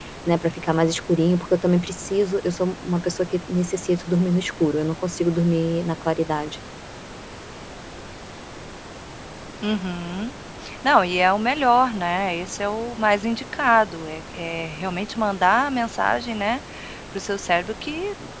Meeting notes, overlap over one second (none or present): none